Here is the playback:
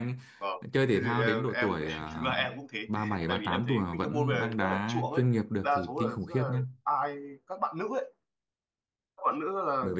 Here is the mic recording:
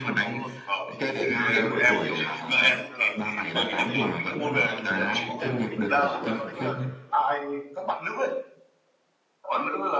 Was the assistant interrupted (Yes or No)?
Yes